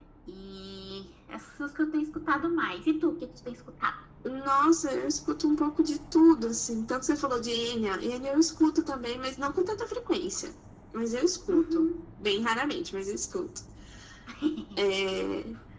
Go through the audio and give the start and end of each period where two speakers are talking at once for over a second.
none

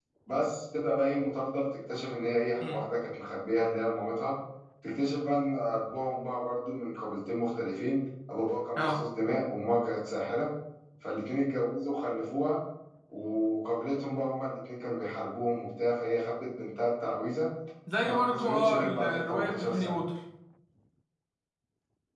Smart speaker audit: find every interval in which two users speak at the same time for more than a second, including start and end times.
18.0-20.0

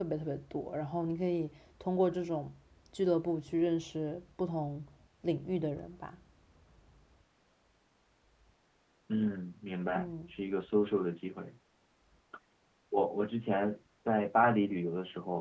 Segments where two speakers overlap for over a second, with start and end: none

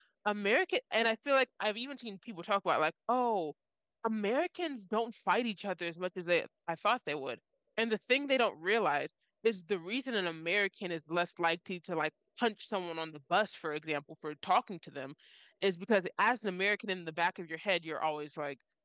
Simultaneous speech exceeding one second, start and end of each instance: none

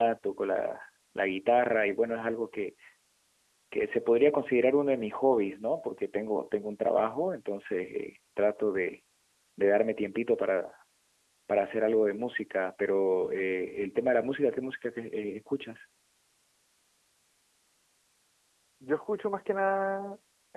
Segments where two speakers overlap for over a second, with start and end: none

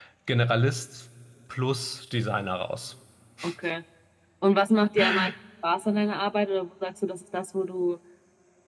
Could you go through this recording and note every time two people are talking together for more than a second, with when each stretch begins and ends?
none

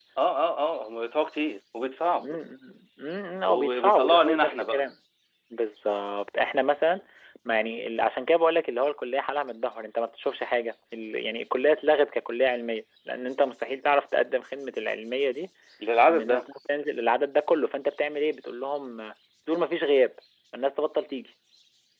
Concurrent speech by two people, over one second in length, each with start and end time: 3.5-4.8

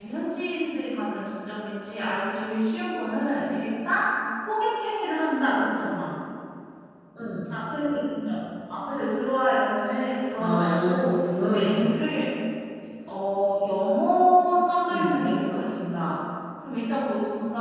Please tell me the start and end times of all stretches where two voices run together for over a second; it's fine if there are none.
10.4-11.8

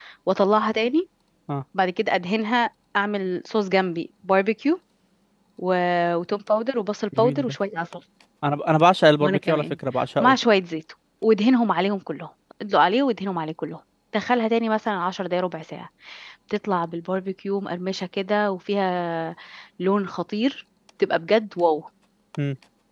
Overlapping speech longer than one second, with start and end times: none

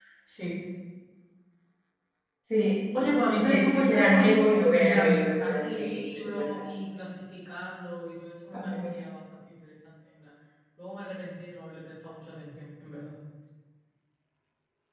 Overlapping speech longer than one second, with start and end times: 3.4-6.7

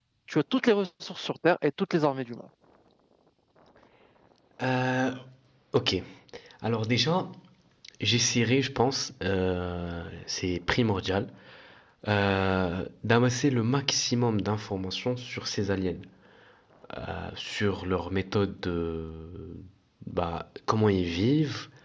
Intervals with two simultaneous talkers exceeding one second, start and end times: none

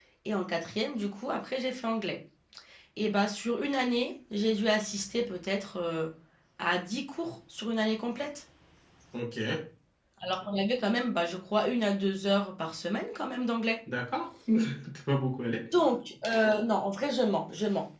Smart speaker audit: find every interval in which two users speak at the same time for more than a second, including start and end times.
none

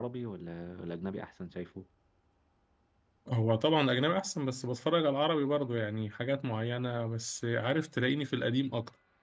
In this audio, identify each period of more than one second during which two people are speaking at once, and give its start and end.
none

